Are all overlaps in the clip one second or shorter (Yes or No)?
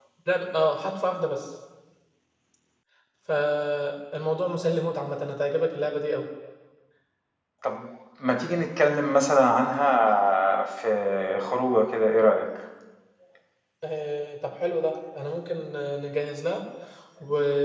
Yes